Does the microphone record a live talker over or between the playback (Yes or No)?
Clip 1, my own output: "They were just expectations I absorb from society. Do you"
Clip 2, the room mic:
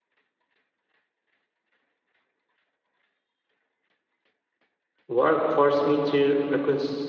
Yes